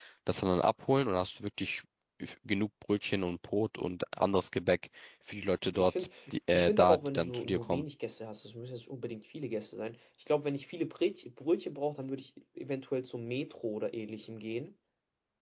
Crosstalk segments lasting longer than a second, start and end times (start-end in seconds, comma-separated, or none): 6.5-7.8